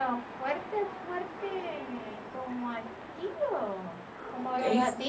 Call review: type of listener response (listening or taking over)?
taking over